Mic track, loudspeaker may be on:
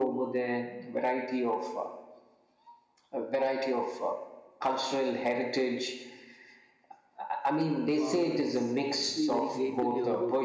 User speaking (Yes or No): Yes